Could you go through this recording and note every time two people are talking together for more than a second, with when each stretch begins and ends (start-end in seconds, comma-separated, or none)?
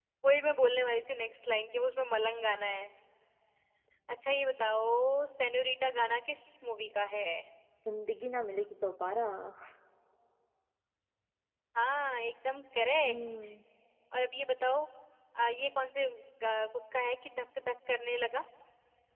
none